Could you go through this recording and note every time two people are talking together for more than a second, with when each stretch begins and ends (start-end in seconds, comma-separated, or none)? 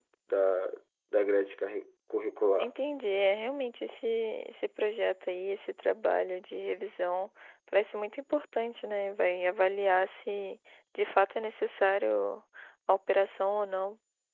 none